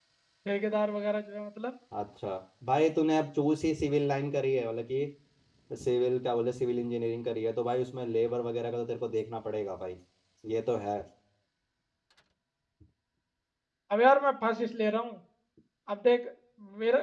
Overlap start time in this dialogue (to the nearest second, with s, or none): none